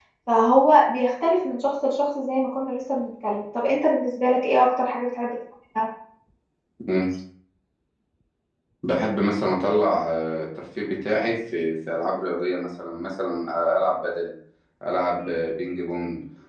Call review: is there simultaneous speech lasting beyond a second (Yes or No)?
No